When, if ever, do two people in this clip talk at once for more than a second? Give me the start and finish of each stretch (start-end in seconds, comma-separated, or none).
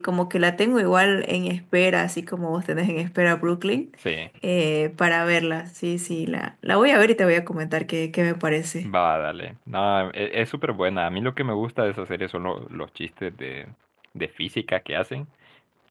none